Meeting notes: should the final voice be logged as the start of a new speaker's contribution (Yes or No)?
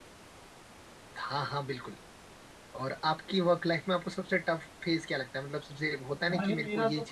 Yes